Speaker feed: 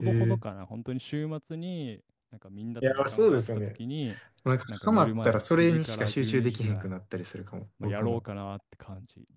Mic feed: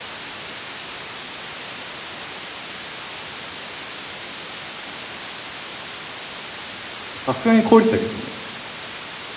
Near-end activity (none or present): present